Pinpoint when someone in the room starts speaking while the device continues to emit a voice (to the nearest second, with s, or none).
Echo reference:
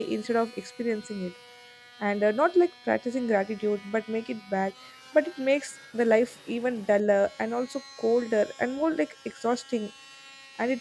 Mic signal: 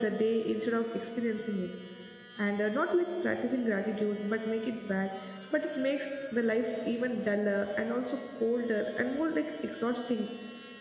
none